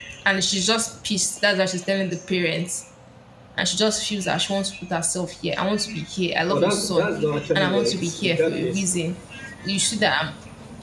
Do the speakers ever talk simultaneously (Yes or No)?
Yes